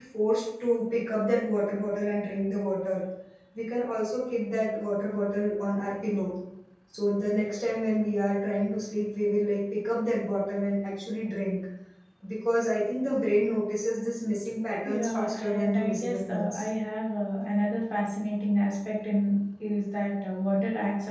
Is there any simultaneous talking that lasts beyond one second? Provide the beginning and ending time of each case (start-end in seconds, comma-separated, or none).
14.8-16.7